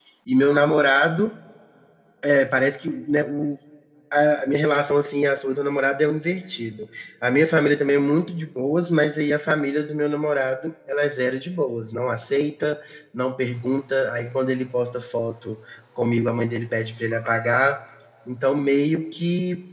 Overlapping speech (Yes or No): No